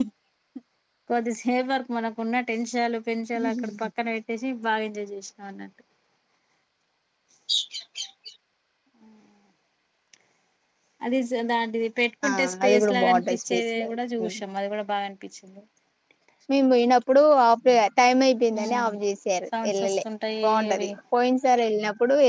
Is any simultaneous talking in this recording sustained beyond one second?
Yes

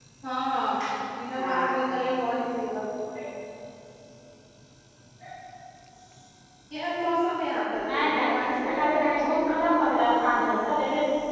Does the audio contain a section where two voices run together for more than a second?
Yes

